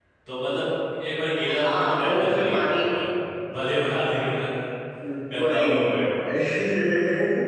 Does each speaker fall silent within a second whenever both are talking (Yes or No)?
No